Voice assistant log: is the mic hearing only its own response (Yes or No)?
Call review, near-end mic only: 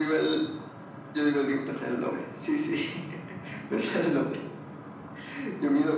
Yes